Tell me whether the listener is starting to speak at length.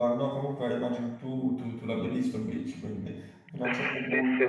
Yes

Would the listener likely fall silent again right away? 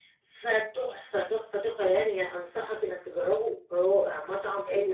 No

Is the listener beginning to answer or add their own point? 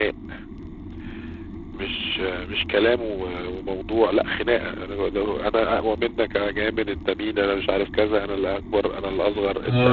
Yes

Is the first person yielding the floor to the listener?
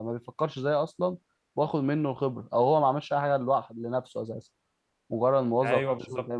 Yes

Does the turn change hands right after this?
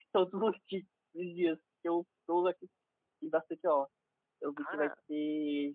No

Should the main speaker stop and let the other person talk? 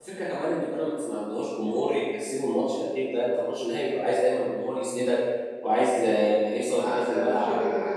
Yes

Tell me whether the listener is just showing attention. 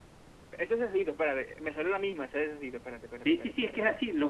No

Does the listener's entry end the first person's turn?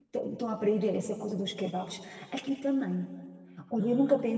No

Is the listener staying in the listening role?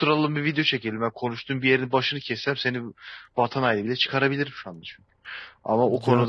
Yes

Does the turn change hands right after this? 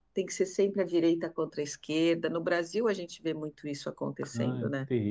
Yes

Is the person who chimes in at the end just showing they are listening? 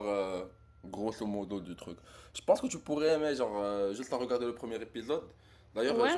Yes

